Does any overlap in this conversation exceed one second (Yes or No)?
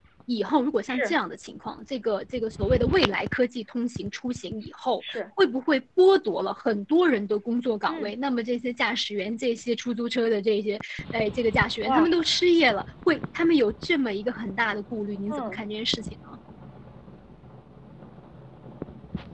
No